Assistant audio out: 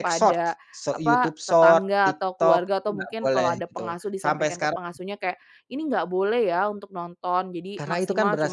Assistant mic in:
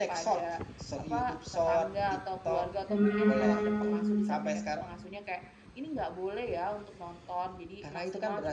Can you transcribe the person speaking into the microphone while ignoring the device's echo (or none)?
Mmm.